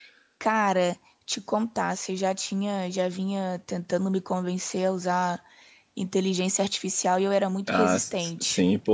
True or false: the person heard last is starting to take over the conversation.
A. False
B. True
B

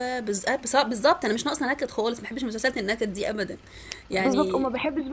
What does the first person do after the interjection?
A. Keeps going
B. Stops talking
B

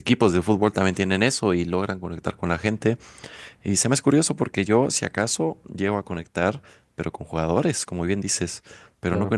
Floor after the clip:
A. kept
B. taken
A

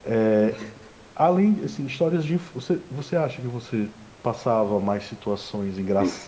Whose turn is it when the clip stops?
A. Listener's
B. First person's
B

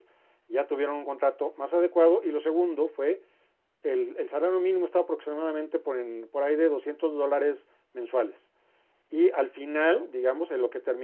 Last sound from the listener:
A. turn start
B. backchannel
B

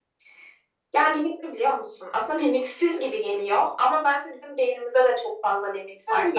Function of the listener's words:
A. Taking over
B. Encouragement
A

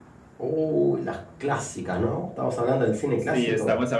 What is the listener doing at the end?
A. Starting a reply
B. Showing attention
A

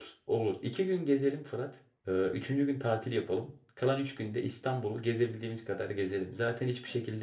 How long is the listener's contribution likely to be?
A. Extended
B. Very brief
B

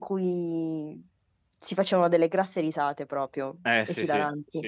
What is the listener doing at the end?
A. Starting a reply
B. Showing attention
A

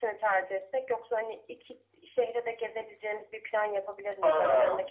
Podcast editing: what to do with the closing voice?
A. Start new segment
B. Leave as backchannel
B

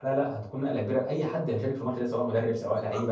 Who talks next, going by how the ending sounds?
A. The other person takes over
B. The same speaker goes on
B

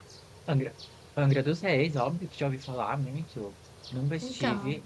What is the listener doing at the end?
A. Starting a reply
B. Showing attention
B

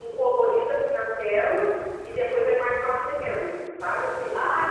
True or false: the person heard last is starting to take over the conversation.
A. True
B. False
A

